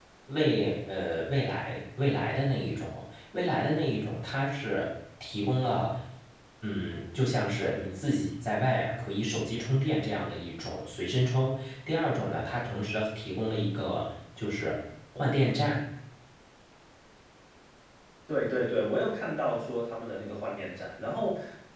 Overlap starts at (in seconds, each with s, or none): none